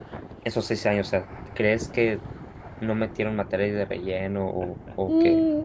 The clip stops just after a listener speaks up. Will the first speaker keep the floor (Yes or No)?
No